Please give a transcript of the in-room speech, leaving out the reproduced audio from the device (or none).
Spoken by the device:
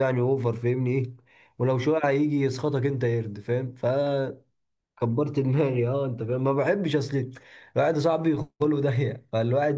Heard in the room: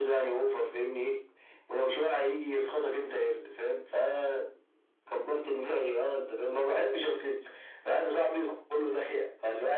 none